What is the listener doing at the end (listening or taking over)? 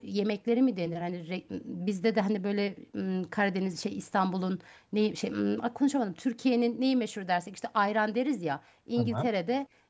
listening